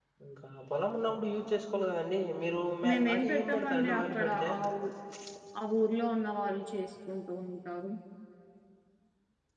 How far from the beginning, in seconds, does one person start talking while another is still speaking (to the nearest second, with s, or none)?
3 s